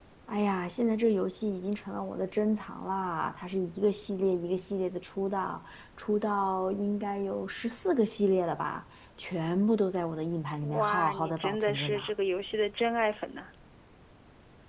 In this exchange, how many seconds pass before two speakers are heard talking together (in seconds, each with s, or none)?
10.6 s